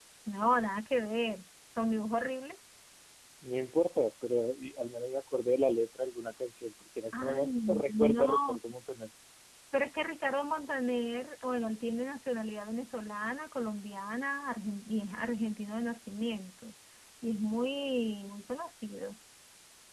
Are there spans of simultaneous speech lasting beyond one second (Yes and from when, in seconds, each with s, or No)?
Yes, from 7.1 s